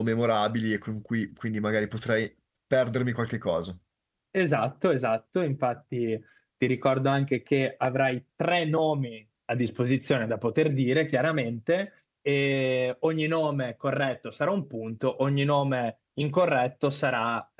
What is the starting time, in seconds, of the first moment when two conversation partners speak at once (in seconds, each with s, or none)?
none